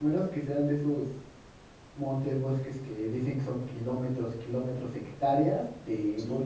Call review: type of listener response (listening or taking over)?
listening